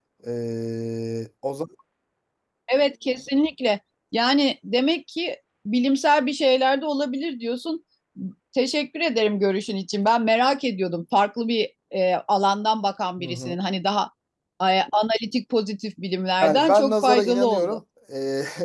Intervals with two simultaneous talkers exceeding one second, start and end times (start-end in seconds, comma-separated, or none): 16.4-17.8